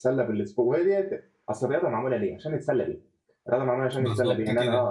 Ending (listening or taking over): listening